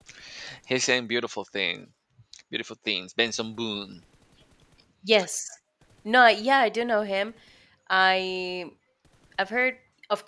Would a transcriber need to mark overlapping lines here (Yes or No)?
No